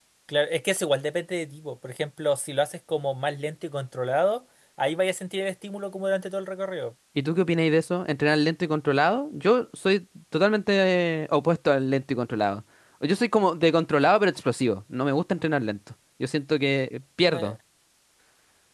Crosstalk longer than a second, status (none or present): none